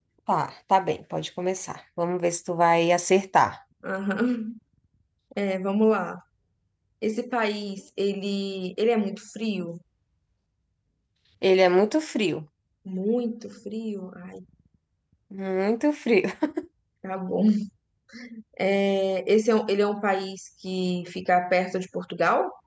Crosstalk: none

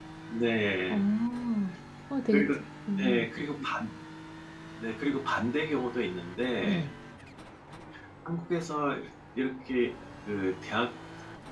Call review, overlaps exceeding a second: none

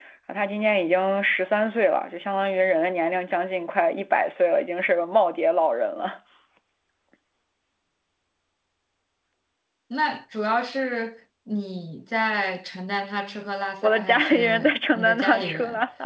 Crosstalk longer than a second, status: present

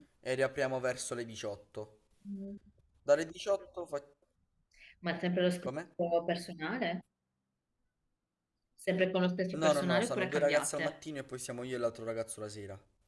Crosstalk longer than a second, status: present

